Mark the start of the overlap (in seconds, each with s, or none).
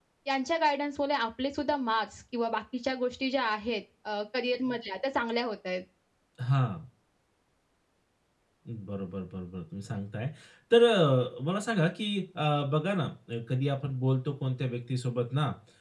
none